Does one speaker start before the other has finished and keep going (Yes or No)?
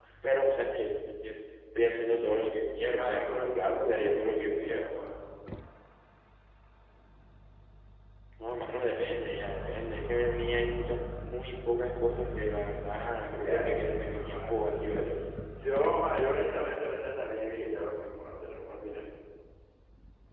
Yes